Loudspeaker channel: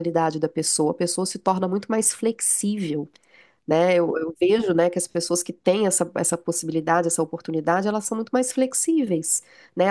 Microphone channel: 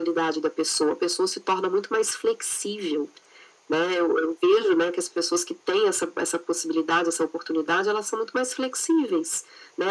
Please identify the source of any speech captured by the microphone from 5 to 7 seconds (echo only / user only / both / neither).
echo only